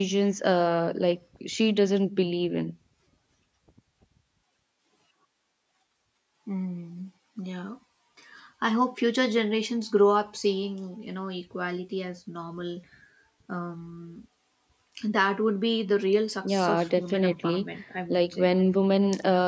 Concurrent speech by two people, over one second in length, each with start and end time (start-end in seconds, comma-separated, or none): 16.4-17.7